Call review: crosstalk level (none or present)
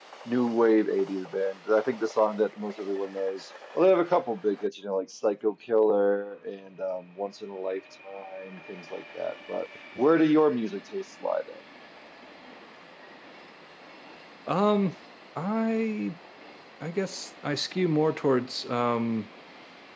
none